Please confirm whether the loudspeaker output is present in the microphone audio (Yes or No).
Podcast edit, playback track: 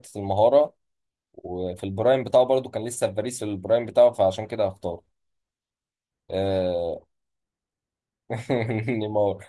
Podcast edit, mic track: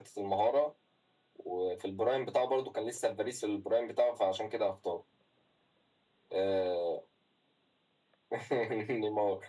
Yes